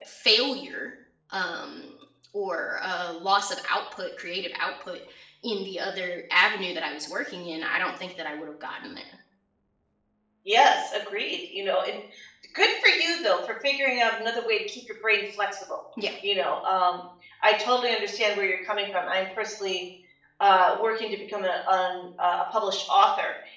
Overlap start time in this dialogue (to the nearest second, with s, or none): none